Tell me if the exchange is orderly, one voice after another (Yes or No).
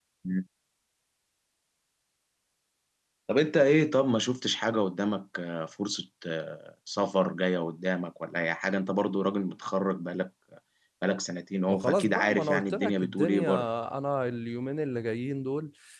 No